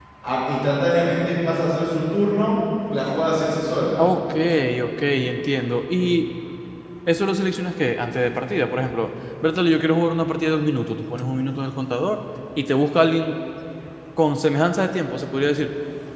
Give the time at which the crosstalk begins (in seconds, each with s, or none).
none